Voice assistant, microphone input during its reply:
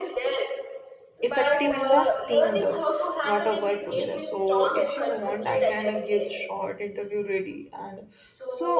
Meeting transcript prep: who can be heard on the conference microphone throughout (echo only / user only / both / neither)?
both